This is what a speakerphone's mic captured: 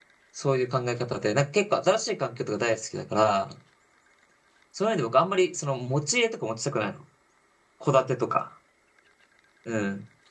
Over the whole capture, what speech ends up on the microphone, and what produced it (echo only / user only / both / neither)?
user only